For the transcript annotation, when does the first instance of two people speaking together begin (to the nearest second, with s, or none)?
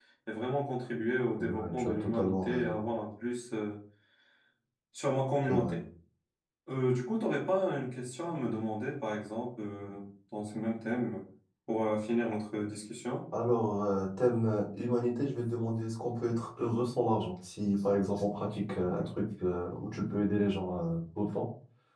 1 s